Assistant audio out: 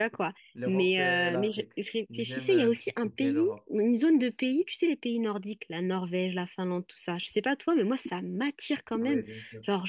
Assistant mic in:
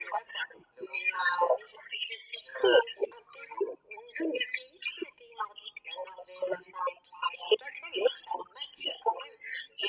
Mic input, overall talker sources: echo only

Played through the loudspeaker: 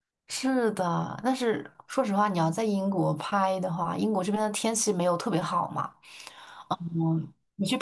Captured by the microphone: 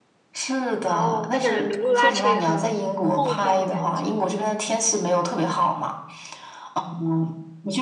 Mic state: both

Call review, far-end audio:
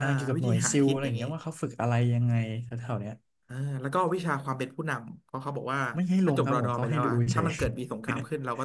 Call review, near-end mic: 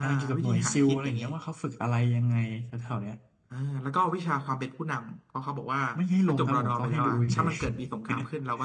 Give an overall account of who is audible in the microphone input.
echo only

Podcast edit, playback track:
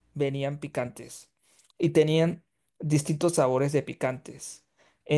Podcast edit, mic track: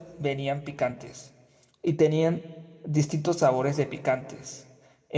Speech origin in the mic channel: echo only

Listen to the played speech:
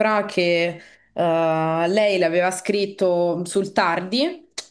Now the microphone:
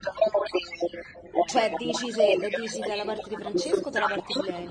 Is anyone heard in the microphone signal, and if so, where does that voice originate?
both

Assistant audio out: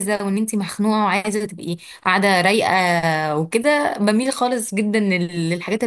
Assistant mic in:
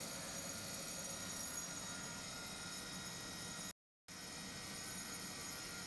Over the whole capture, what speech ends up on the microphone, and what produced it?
neither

